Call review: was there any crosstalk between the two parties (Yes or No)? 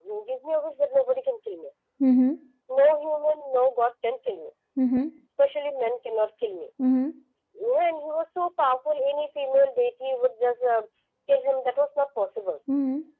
No